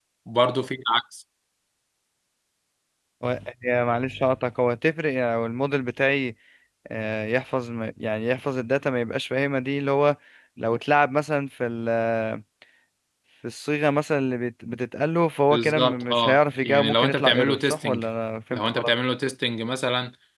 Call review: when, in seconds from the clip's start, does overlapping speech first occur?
16 s

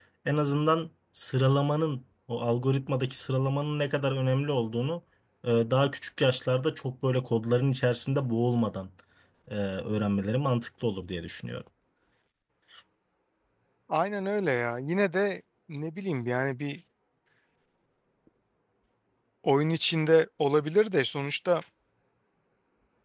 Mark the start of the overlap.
none

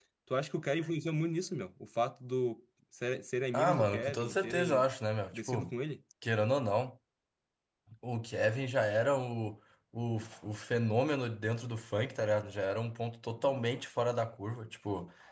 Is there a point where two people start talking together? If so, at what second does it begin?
4 s

